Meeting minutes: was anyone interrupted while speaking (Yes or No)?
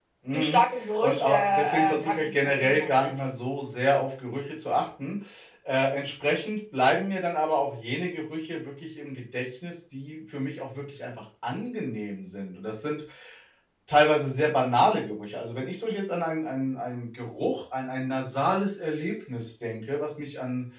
Yes